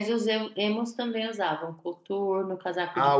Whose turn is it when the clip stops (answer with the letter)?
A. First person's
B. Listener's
B